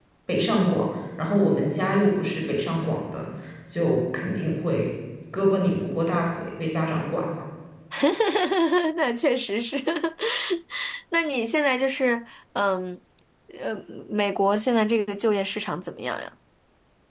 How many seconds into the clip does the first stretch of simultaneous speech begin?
none

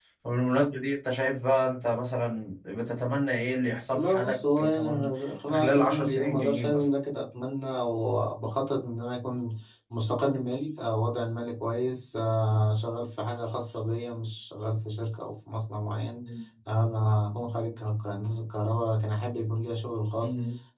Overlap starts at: 3.9 s

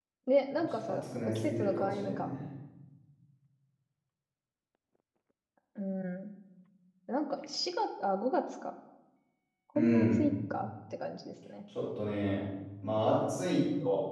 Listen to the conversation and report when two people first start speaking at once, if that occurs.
0.8 s

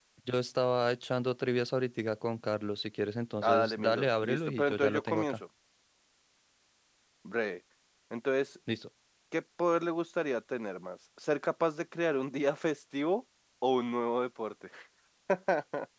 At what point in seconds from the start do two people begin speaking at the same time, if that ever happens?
3.4 s

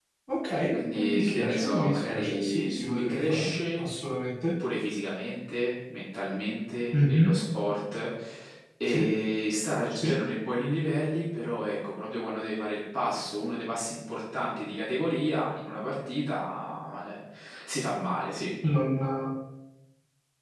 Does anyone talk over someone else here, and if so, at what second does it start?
0.9 s

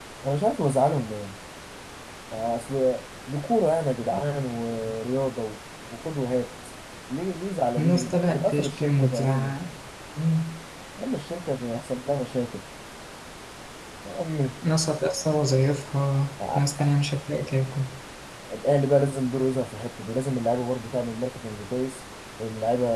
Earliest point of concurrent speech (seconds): 7.8 s

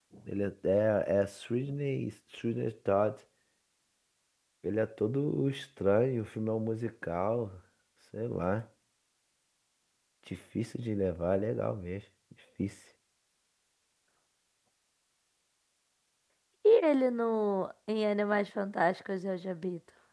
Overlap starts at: none

